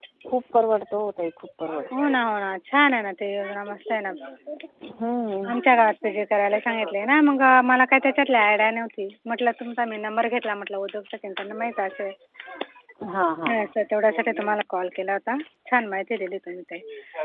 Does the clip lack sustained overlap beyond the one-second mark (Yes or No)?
Yes